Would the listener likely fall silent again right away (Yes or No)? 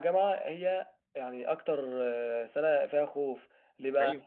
Yes